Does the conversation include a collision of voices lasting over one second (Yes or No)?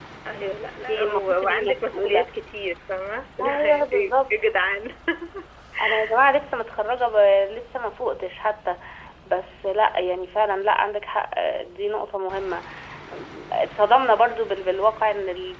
Yes